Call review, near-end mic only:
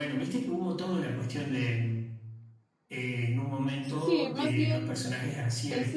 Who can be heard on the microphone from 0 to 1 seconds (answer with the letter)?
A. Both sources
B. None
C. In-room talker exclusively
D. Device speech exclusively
D